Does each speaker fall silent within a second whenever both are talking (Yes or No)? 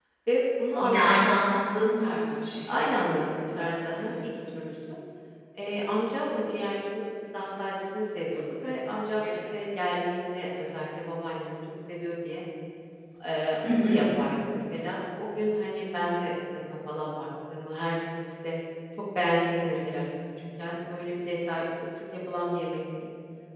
No